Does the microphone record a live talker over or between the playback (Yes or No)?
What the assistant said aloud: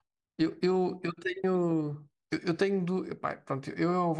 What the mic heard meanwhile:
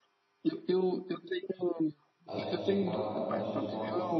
Yes